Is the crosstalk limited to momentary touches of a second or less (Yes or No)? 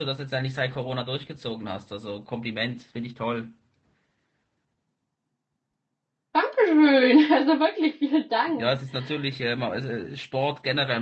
Yes